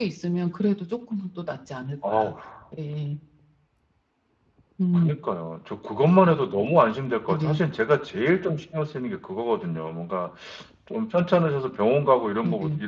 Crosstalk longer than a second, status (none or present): none